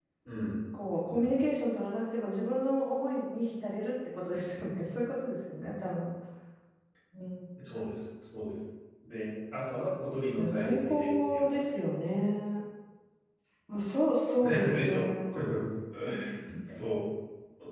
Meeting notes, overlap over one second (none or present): present